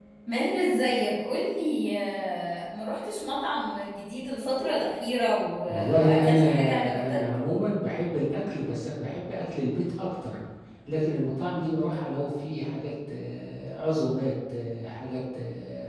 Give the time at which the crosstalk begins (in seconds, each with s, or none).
5.7 s